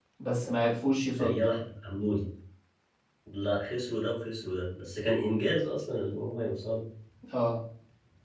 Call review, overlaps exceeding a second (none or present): none